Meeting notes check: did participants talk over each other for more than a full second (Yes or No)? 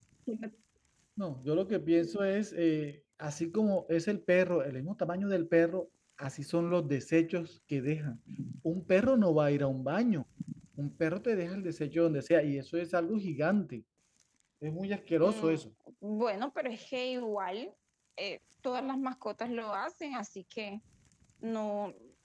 No